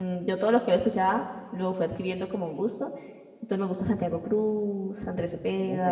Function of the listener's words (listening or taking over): taking over